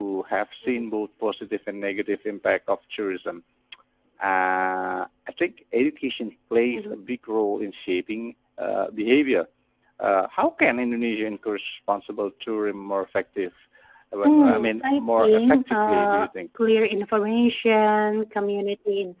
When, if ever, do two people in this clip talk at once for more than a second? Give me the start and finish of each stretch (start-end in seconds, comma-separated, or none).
14.2-16.3